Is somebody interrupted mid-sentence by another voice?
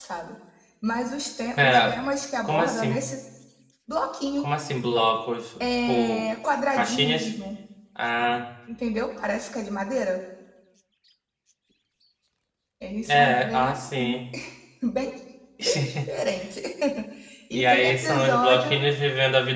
Yes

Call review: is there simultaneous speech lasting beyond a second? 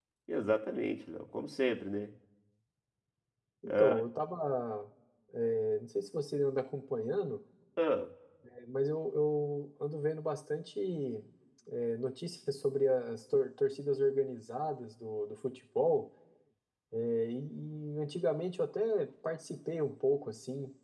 No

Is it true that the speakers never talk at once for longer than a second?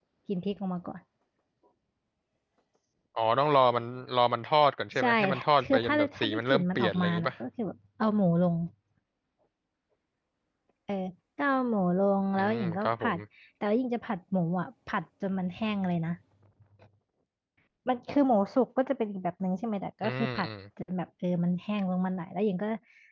No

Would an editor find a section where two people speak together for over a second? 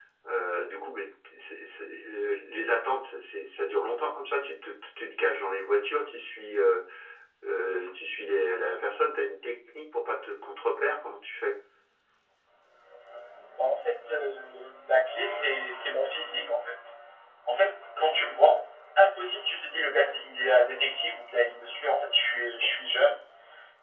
No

